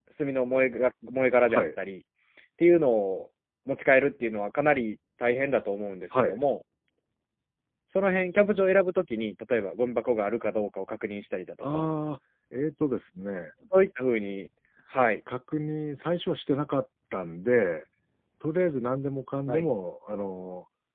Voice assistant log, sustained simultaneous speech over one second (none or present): none